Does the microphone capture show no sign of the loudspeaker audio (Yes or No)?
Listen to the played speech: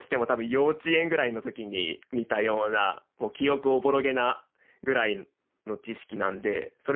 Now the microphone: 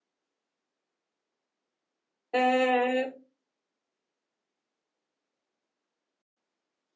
Yes